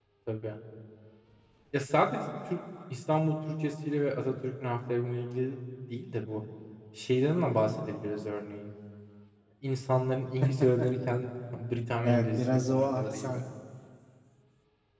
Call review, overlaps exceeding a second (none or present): present